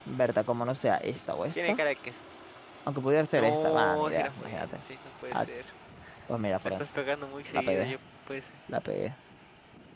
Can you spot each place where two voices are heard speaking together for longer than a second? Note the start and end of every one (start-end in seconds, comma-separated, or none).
3.4-4.7